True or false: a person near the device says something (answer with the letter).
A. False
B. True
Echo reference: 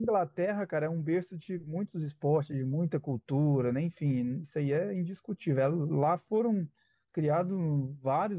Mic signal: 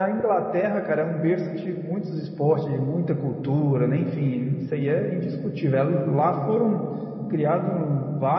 A